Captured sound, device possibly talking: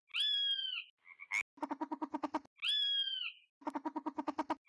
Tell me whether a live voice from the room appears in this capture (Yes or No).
No